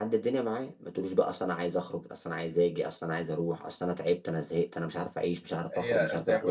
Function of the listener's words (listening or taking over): taking over